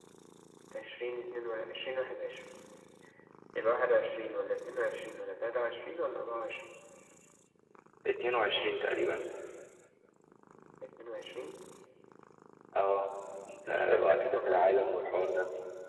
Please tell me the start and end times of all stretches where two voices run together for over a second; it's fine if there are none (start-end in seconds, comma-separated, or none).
13.7-15.0